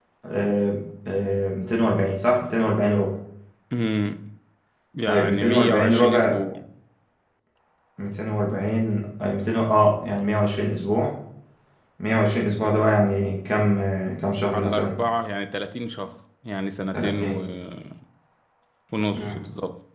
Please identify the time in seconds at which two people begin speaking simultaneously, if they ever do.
5.1 s

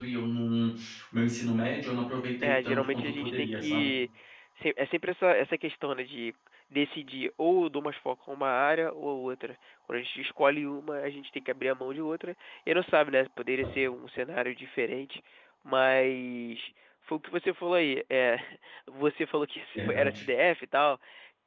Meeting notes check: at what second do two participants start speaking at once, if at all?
2.4 s

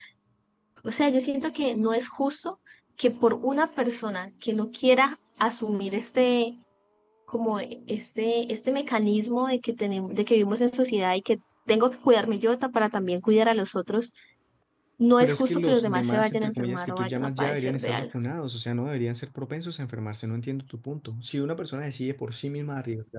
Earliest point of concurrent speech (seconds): 15.2 s

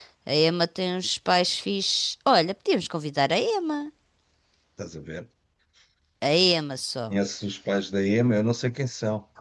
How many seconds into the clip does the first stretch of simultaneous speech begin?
none

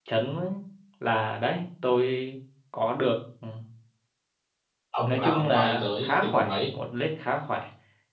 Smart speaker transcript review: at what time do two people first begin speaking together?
5.1 s

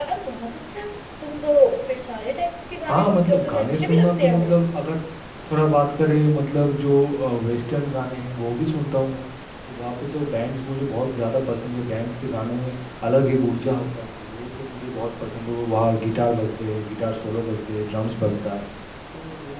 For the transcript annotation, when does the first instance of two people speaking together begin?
2.8 s

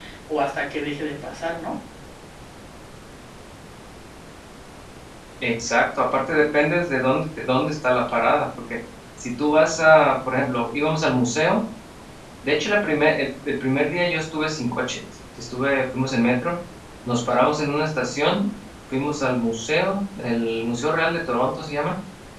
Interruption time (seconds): none

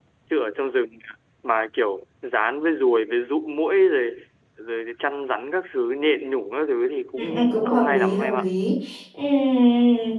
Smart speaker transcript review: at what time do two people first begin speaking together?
7.2 s

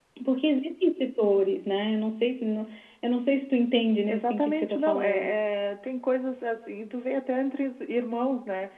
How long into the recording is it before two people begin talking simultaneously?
4.0 s

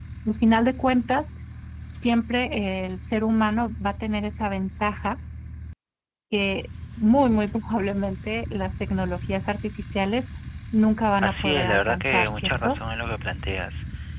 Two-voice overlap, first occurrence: 11.2 s

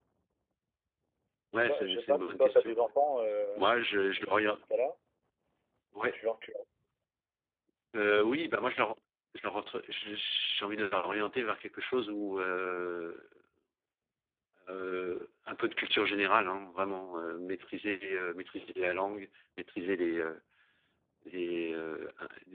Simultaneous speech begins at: 1.6 s

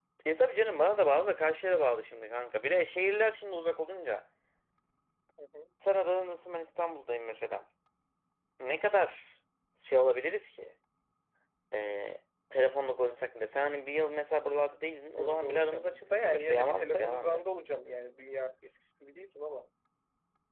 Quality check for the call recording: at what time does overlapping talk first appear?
15.2 s

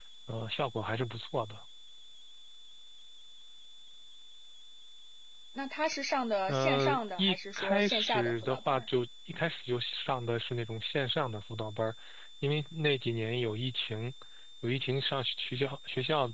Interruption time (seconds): 6.5 s

